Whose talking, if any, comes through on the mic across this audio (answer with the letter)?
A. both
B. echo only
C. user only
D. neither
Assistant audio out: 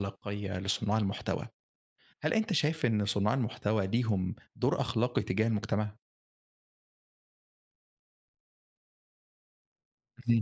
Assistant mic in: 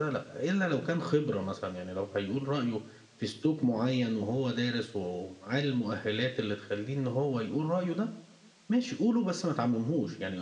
C